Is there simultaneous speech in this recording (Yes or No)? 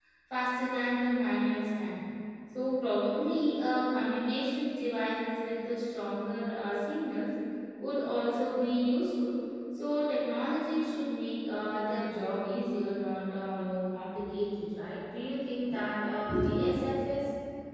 No